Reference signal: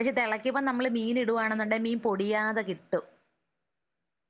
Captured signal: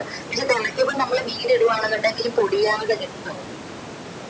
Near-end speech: none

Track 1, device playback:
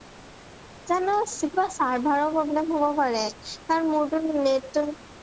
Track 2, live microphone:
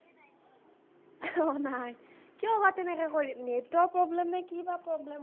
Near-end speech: present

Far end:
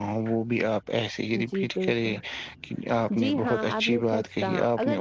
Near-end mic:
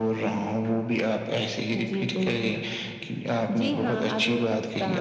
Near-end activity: none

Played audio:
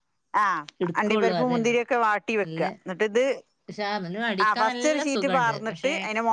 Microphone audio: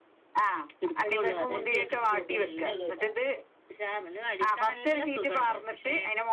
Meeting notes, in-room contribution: present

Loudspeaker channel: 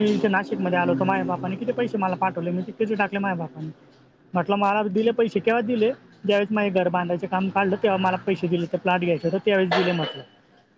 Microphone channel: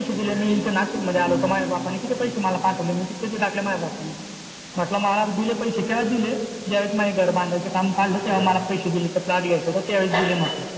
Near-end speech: none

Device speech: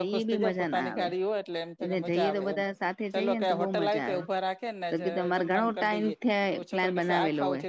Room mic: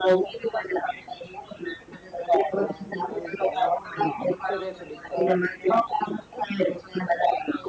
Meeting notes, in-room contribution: present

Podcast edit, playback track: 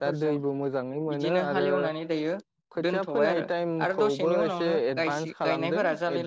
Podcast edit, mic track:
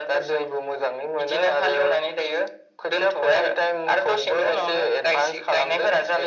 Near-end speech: none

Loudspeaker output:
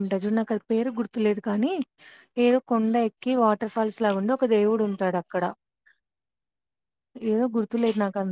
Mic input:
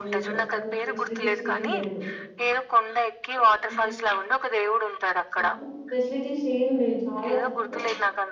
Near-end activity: present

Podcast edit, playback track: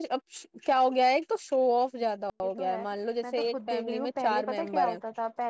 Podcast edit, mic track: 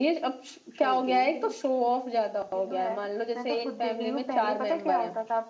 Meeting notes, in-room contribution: present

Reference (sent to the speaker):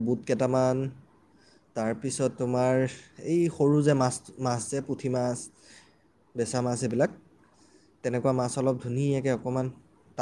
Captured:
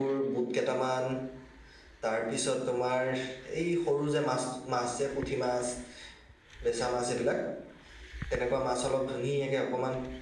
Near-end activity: none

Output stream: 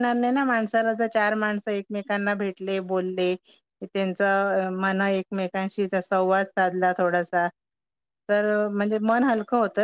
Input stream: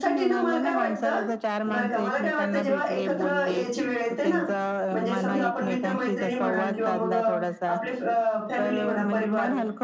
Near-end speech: present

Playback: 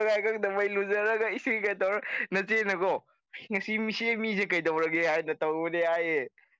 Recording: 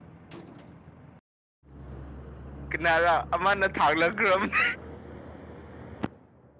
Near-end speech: present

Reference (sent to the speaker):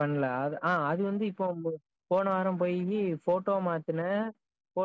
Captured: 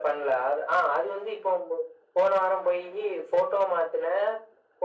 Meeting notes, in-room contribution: none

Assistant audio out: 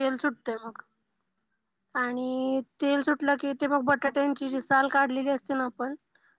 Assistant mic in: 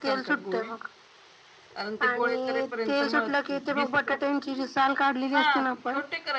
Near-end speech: present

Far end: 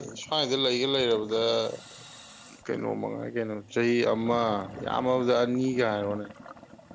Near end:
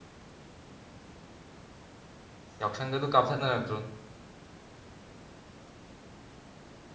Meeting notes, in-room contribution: present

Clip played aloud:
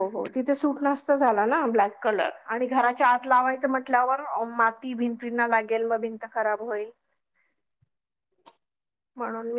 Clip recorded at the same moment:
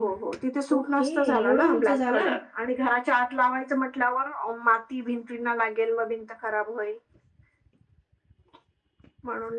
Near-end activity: present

